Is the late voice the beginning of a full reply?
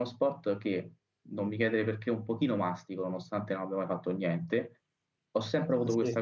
No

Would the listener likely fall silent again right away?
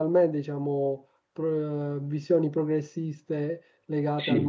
Yes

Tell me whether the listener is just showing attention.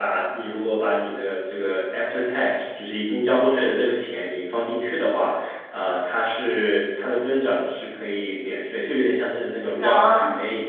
Yes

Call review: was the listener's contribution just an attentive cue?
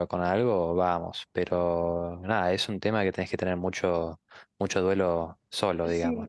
No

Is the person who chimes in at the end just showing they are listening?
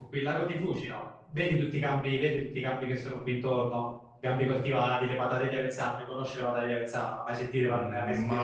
No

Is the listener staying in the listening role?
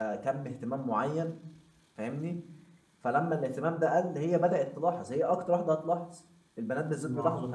Yes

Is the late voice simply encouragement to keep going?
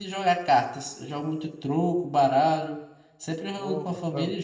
Yes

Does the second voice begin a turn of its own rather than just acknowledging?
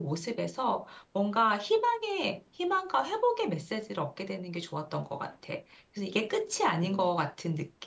No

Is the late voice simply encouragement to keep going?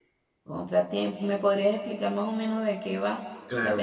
No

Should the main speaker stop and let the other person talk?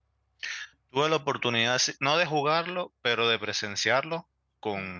No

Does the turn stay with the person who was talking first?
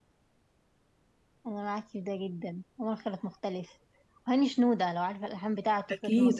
No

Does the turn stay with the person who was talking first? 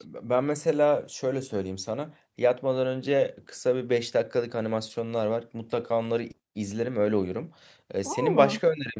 Yes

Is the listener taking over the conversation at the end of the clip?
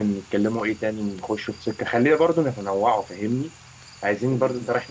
No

